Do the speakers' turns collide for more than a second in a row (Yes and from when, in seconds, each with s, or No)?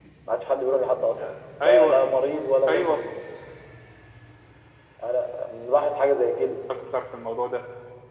No